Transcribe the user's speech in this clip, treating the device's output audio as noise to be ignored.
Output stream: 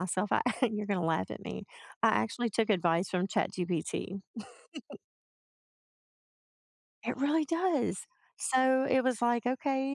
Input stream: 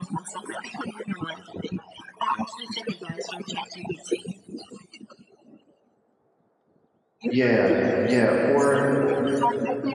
Yeah, yeah, or

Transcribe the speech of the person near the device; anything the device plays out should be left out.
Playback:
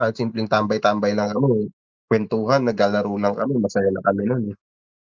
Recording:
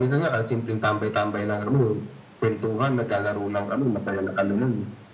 none

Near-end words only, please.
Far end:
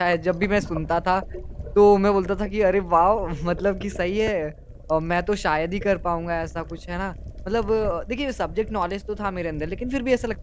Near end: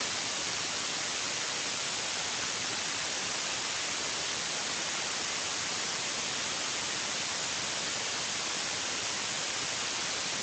none

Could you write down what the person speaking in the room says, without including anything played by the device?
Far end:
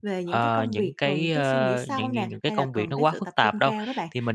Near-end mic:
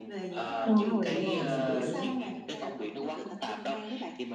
Đúng rồi, đúng rồi, mình hiểu.

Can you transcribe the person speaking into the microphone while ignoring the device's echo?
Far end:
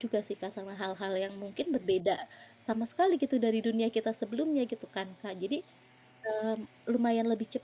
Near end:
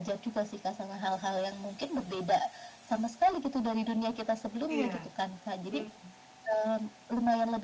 Iya. Mmm.

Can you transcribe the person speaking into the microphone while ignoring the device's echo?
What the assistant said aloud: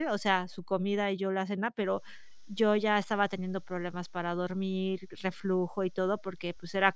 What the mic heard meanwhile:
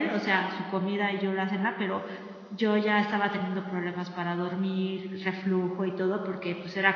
none

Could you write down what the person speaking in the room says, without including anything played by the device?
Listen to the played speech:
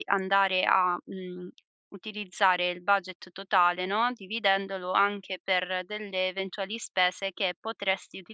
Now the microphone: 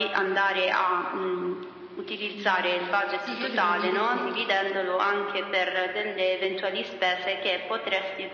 Mh. Sì, io devo dire che

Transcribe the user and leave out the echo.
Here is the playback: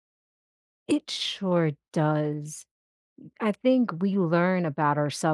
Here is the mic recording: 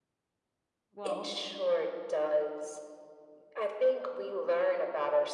Well

